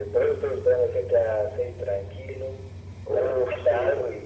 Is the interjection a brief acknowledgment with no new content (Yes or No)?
Yes